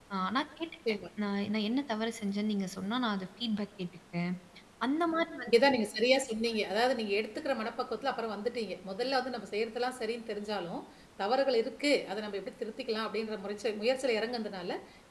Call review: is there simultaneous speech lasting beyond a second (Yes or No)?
No